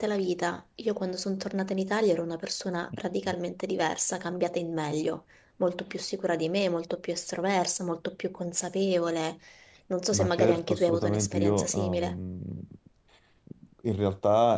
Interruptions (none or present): present